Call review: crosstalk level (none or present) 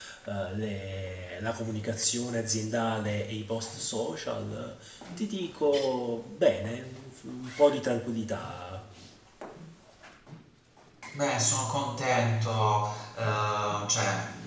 none